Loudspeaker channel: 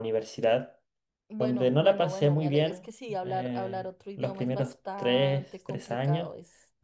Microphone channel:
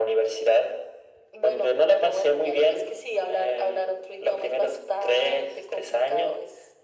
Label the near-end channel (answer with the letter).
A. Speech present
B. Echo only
B